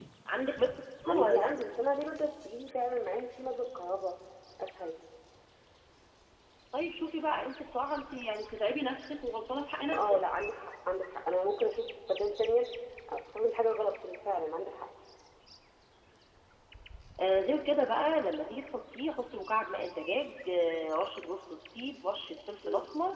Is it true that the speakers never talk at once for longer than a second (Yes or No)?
Yes